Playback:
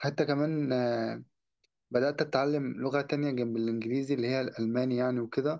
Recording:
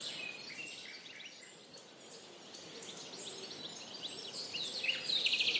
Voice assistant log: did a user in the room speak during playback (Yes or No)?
No